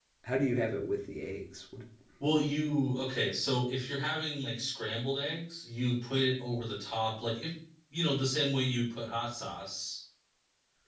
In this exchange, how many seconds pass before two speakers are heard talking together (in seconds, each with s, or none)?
none